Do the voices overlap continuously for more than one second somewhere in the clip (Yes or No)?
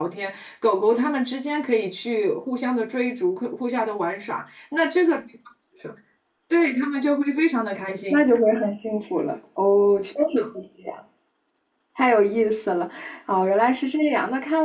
No